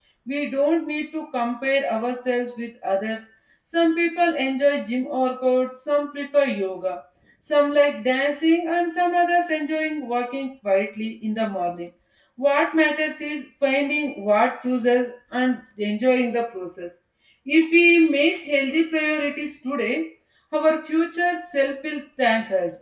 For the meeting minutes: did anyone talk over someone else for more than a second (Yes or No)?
No